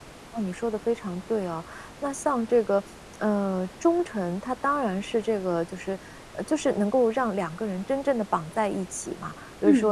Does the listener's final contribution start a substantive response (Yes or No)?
No